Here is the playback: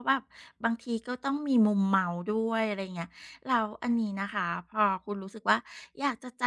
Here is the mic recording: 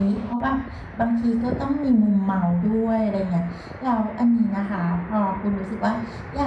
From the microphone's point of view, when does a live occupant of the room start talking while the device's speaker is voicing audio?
none

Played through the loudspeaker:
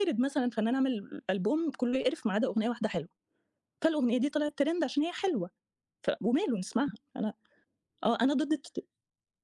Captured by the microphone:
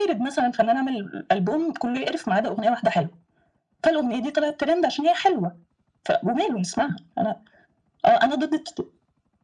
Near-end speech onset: none

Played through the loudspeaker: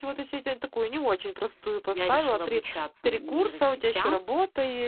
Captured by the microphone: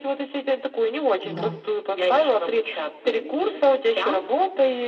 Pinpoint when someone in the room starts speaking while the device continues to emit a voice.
1.2 s

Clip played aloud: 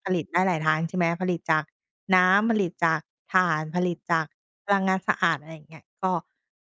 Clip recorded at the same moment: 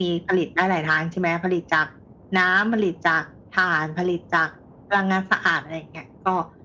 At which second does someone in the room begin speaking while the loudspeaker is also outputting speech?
none

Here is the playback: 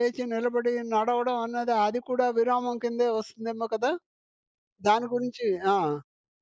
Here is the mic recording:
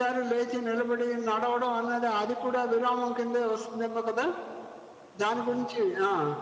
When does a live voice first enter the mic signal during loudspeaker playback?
none

